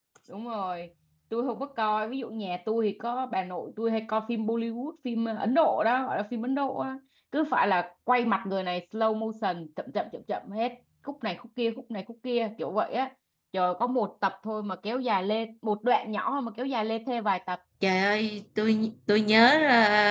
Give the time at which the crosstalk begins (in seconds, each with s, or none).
none